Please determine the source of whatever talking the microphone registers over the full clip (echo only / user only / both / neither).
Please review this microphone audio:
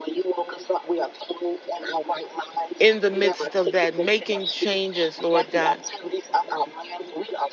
both